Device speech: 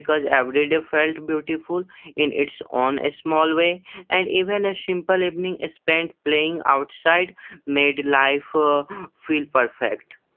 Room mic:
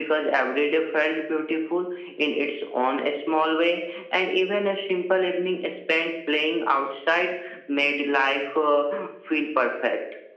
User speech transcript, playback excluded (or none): none